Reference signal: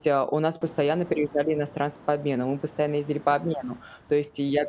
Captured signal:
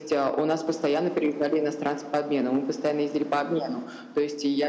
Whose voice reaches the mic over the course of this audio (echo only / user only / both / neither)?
echo only